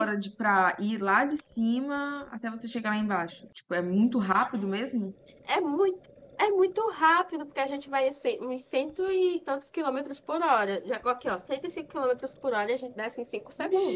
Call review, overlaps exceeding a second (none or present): none